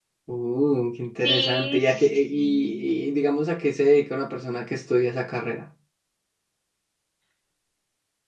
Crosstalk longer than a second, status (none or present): present